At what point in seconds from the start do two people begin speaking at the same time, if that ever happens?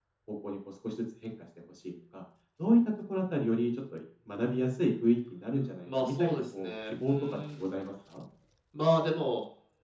5.9 s

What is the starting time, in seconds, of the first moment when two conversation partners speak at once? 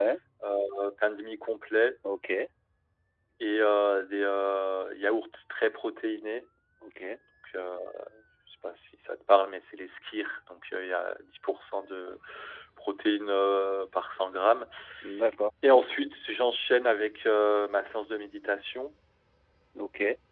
none

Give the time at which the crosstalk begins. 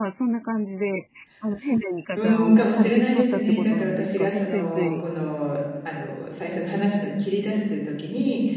2.2 s

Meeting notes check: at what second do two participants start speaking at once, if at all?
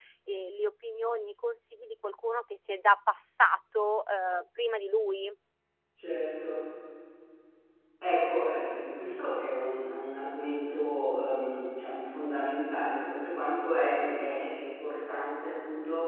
none

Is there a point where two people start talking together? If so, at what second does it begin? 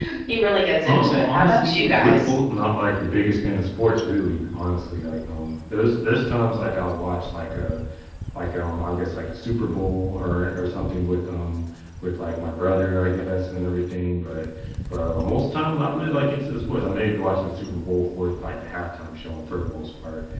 0.8 s

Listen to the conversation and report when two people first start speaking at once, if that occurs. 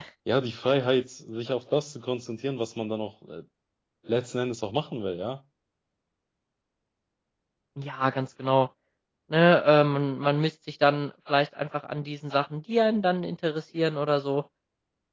none

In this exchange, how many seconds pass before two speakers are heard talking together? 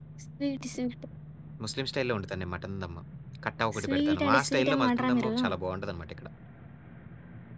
3.8 s

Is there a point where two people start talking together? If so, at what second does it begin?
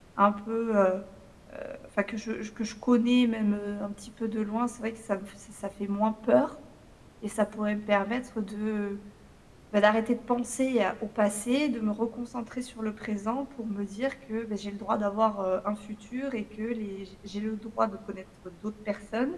none

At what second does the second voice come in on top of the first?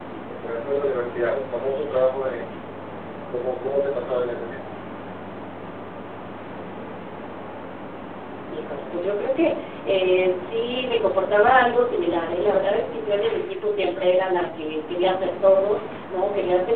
none

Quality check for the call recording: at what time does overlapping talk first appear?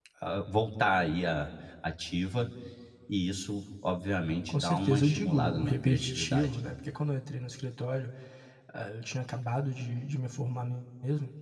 4.5 s

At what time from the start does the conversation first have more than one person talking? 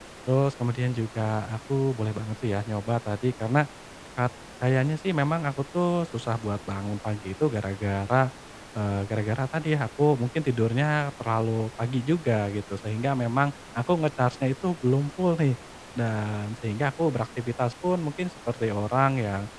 none

